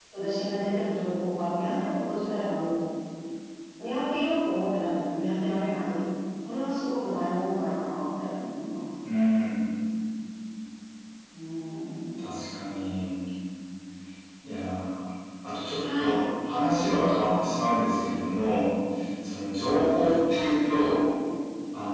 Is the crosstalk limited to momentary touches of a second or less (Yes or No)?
Yes